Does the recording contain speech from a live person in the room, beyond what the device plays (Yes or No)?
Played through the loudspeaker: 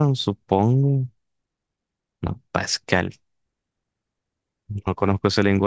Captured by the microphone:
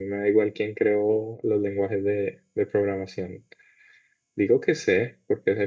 Yes